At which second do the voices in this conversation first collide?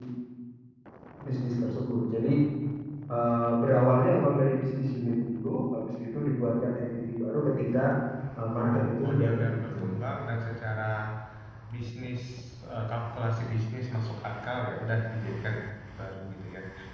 8.6 s

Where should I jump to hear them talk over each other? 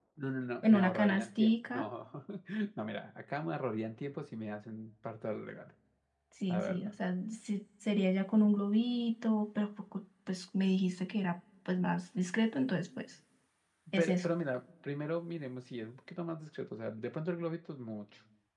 0.7 s

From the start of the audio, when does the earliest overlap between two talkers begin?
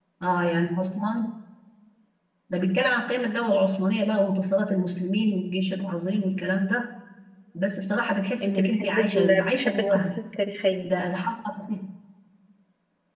8.4 s

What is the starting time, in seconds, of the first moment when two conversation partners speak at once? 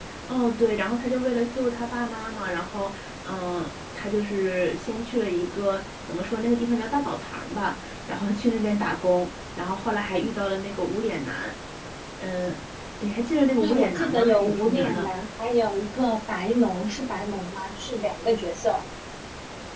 13.6 s

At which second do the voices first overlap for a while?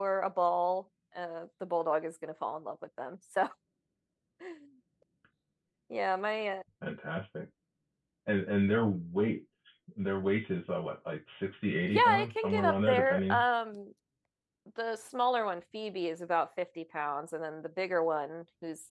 11.9 s

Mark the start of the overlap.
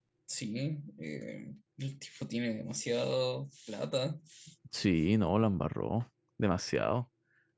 none

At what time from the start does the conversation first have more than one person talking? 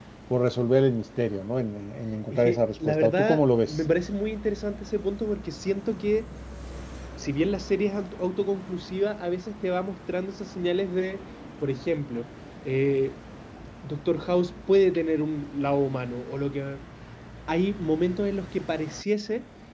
2.3 s

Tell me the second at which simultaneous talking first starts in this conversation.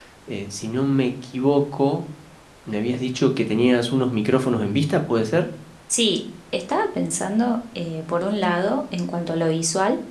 none

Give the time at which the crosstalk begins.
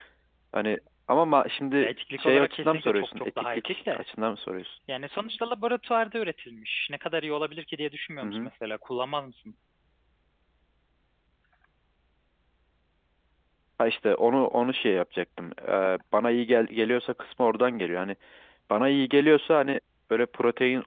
1.8 s

